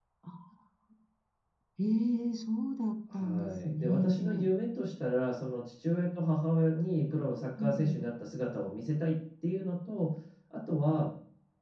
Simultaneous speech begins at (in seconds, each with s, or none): 3.1 s